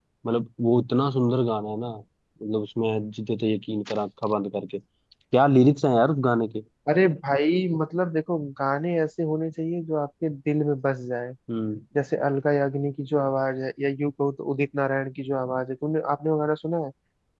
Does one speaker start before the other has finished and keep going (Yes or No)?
No